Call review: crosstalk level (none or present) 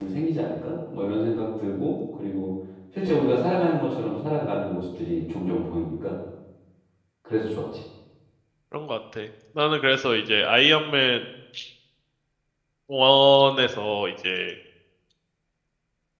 none